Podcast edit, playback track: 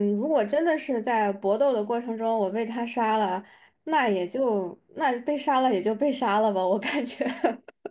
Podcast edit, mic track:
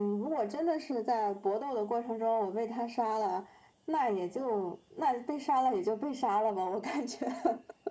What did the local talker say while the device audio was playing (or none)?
none